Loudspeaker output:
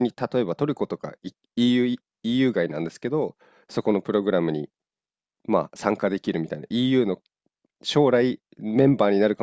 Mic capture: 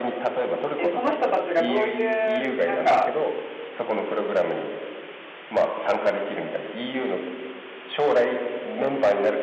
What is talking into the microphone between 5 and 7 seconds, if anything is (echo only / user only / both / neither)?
echo only